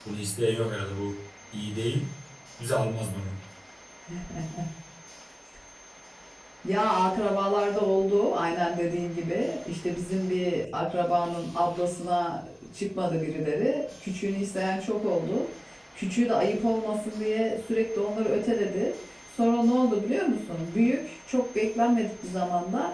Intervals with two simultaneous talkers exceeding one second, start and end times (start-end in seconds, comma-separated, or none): none